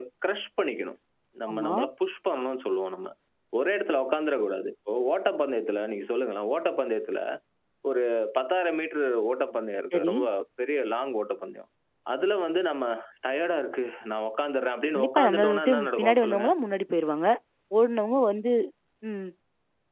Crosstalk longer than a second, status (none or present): present